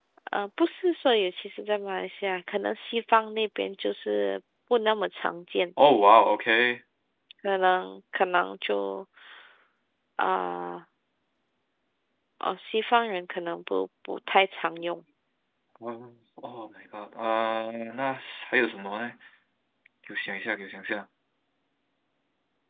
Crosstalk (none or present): none